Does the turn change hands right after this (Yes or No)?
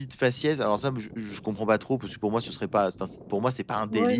Yes